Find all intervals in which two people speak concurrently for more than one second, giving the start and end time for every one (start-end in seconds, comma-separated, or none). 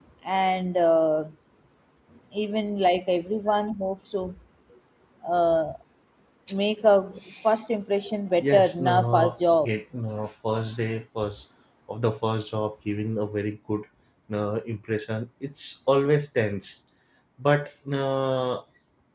8.4-9.7